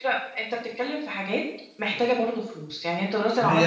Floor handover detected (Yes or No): Yes